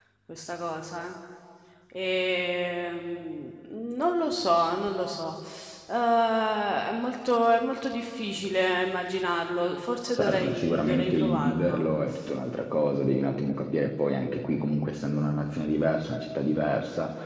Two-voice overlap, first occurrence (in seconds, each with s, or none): 10.2 s